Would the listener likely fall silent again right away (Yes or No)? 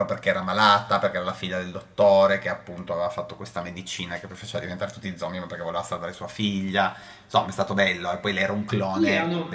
No